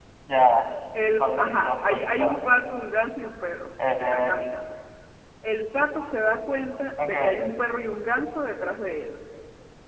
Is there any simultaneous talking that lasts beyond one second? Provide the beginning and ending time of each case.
1.2-2.6

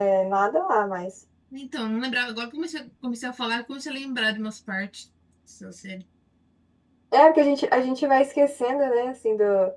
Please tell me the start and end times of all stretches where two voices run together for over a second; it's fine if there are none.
none

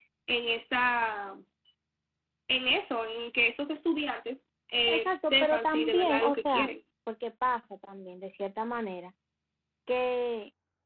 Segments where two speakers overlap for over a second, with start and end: 4.9-6.7

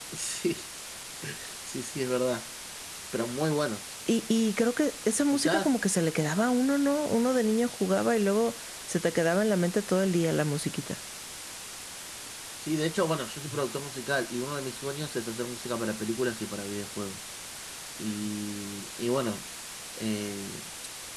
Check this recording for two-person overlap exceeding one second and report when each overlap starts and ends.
none

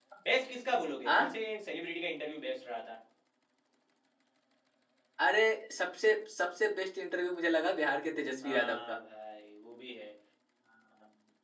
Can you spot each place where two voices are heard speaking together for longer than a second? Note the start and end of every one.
none

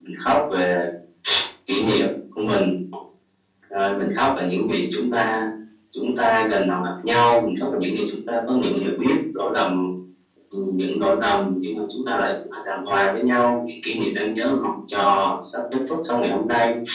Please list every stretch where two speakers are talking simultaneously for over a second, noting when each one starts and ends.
none

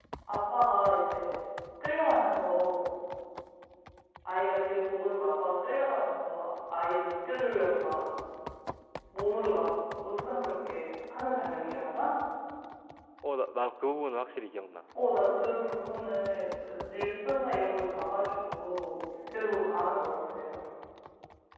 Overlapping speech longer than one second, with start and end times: none

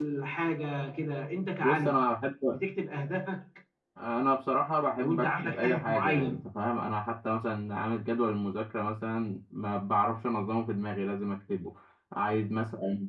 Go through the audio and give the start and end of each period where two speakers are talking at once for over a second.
5.0-6.5

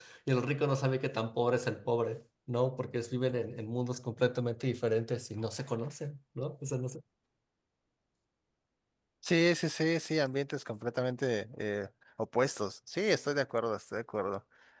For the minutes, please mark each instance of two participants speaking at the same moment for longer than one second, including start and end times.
none

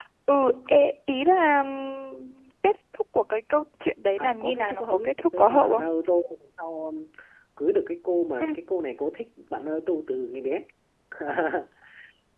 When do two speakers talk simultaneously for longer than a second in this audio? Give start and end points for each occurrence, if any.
4.2-5.9

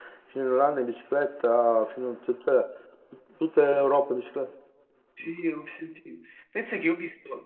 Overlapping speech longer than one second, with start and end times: none

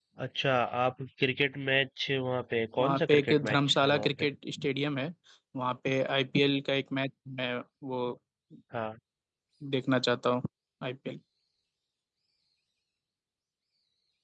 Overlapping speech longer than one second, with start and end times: 2.8-4.1

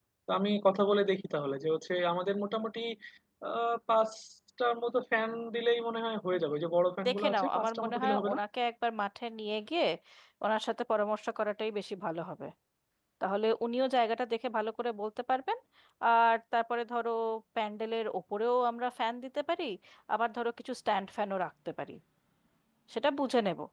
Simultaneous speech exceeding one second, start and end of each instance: 7.0-8.4

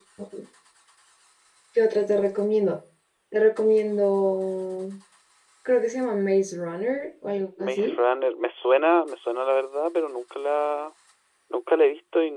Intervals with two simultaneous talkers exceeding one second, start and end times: none

